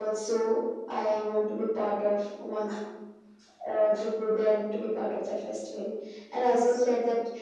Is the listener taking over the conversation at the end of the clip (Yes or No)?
No